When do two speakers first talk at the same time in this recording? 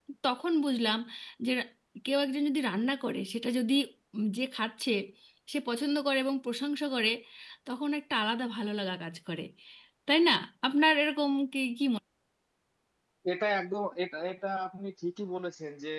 none

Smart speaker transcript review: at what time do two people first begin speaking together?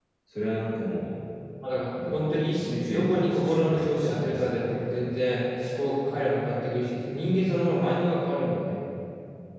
1.9 s

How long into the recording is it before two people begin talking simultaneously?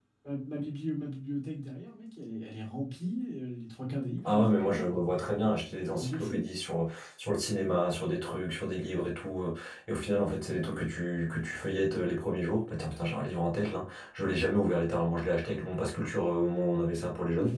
4.2 s

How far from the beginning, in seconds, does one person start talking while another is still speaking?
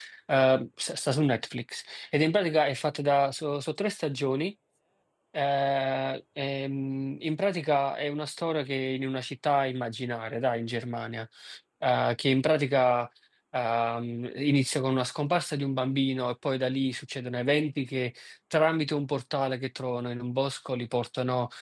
none

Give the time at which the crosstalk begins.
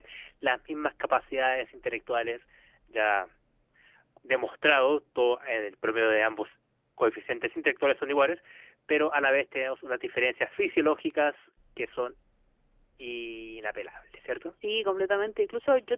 none

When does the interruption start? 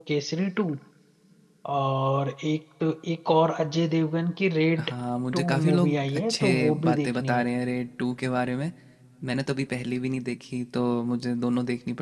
5.3 s

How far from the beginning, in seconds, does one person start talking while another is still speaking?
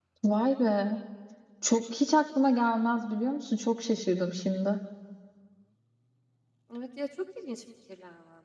none

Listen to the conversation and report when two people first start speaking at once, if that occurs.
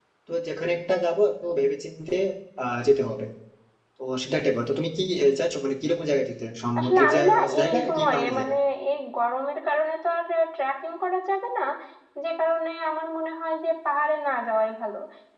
6.8 s

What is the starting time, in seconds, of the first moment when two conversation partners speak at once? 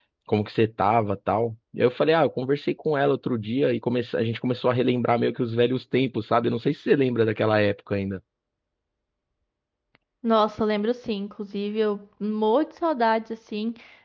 none

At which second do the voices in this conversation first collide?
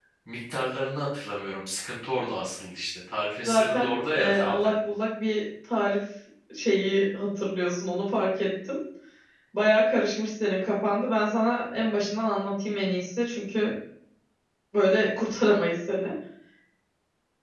3.5 s

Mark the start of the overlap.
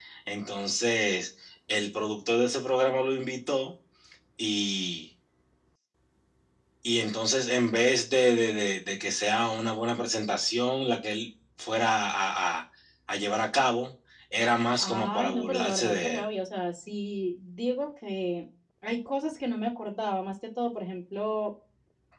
14.8 s

